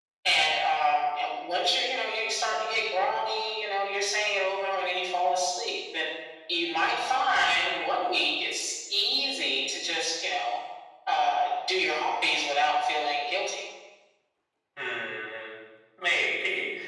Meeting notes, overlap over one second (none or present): none